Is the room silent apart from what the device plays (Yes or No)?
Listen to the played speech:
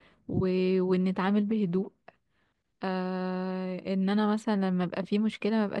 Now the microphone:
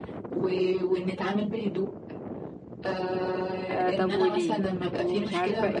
No